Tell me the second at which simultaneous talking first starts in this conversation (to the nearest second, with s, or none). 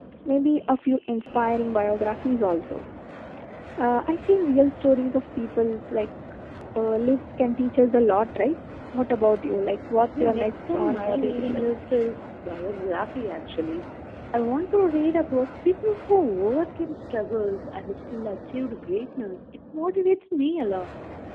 10 s